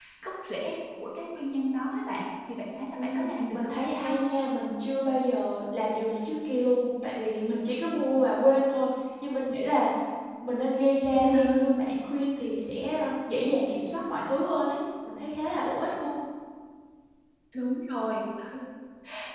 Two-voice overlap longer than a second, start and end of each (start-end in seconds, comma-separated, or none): 3.0-4.2